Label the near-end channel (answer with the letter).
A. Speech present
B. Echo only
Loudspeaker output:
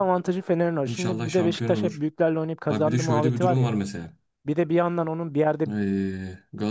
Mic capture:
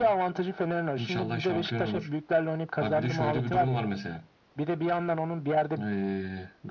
B